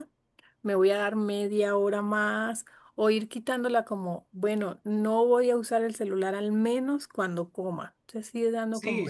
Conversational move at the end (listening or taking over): taking over